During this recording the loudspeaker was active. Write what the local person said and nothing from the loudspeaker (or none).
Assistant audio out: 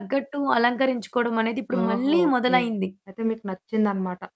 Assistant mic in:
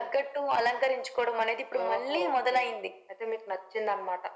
none